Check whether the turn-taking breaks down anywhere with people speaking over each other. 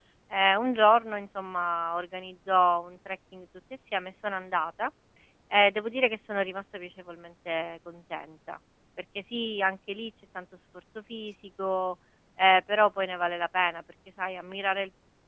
No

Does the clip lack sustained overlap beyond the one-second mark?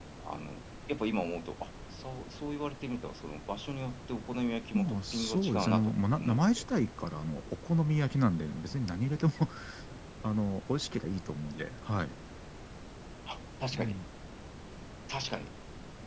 No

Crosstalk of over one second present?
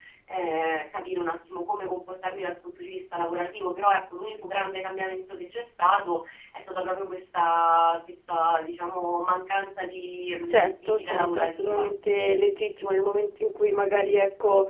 Yes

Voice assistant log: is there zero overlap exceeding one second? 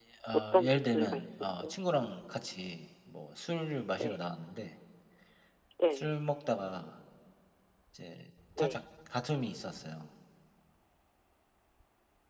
No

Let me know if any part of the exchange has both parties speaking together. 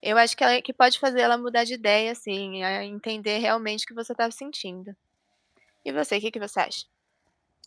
No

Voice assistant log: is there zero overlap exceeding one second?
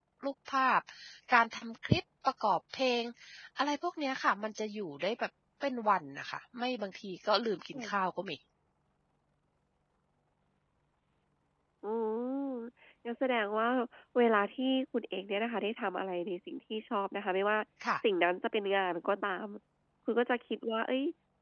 Yes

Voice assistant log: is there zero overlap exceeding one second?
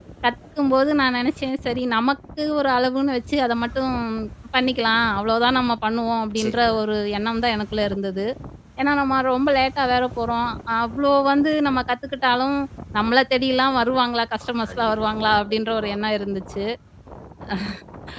No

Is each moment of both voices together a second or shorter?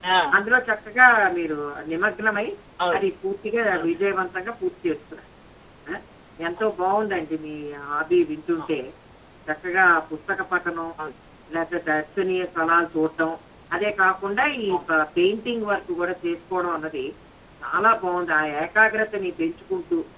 Yes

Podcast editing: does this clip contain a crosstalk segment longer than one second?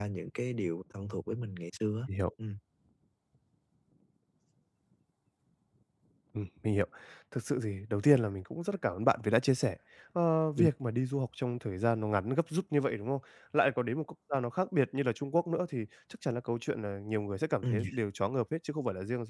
No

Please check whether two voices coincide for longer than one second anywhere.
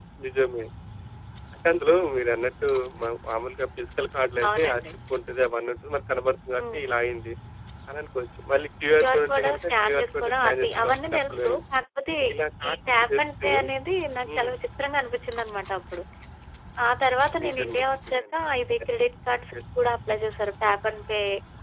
Yes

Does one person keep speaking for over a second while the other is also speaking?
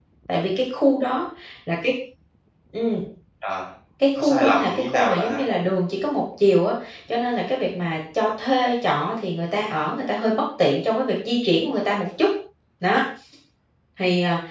Yes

